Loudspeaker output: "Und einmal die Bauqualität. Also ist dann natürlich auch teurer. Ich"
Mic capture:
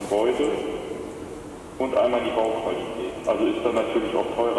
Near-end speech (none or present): none